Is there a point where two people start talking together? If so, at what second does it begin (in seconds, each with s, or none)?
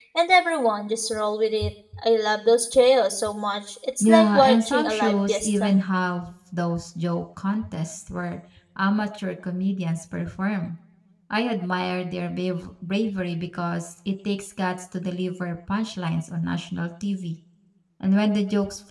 4.0 s